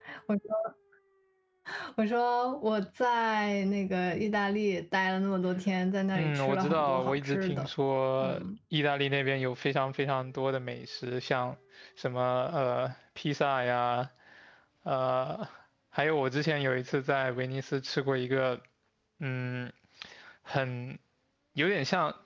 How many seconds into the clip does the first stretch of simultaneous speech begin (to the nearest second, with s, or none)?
6 s